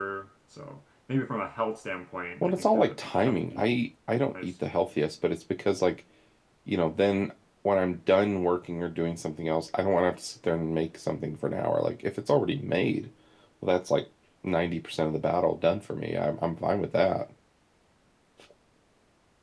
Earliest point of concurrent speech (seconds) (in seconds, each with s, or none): 2.4 s